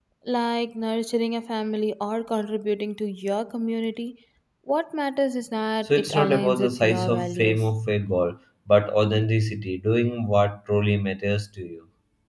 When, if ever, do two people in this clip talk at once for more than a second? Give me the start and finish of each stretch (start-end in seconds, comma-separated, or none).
5.8-7.7